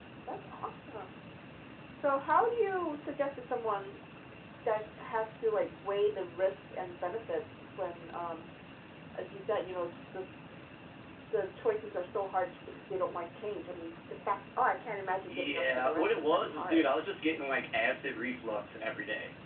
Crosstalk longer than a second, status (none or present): present